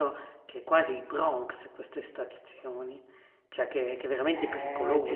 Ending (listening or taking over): taking over